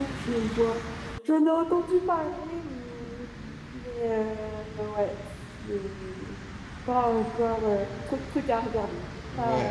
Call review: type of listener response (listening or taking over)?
taking over